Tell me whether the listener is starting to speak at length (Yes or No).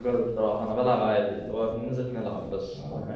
Yes